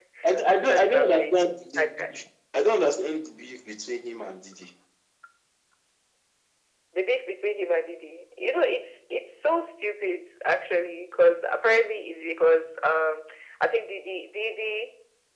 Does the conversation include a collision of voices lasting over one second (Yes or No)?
Yes